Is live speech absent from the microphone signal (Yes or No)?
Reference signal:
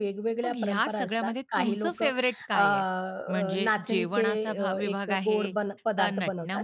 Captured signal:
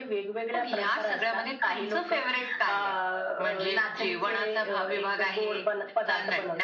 Yes